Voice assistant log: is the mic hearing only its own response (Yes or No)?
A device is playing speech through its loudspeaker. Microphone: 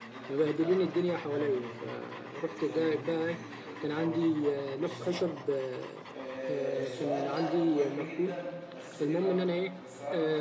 No